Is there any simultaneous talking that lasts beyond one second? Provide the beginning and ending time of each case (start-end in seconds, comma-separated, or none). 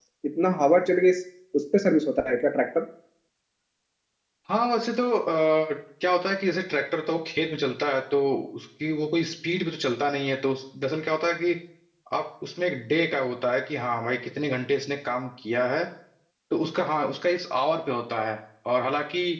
none